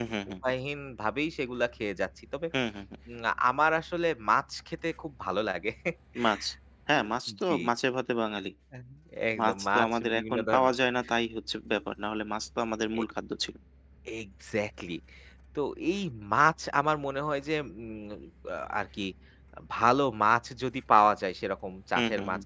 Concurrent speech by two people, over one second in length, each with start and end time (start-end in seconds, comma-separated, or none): 9.4-10.7